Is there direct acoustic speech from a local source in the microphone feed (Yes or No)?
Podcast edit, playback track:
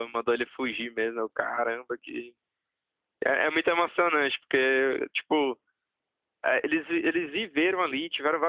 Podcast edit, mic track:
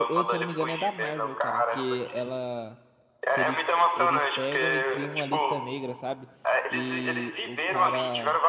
Yes